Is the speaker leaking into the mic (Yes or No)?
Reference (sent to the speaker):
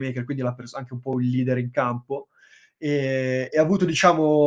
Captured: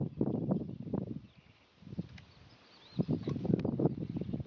No